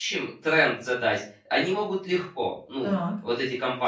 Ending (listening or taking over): listening